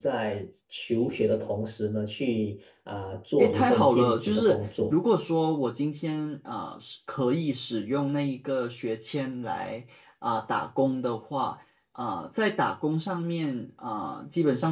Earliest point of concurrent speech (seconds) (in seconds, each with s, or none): 3.4 s